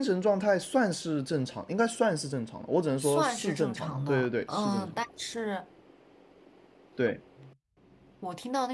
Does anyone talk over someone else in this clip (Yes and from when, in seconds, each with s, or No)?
Yes, from 3.0 s